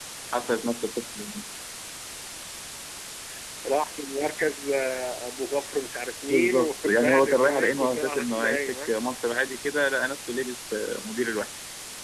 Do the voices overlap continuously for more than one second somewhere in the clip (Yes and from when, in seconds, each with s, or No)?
Yes, from 6.3 s